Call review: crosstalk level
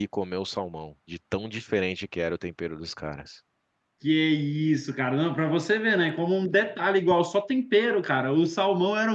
none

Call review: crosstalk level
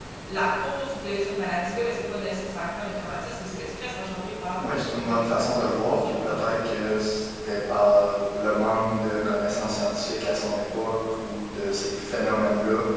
present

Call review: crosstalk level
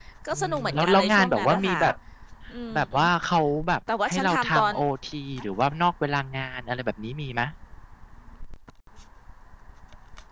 present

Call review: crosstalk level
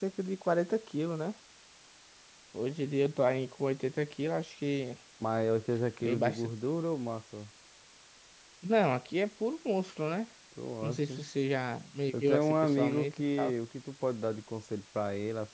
present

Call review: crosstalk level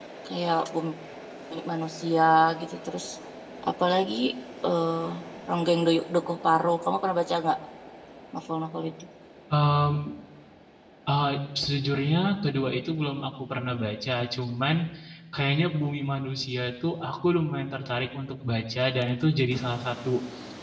none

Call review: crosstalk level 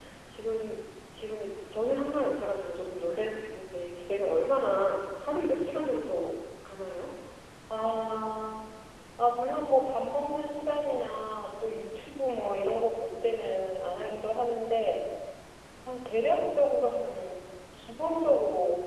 none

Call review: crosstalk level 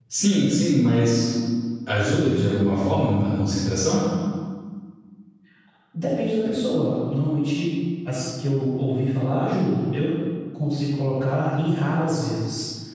none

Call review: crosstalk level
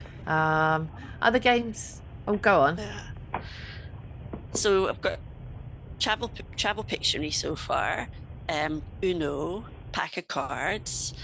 none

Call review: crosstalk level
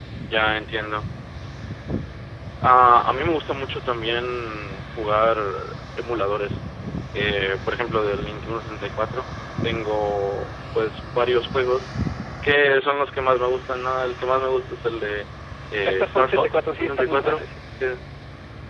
present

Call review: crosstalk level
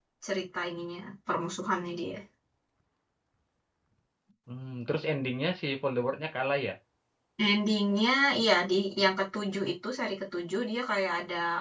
none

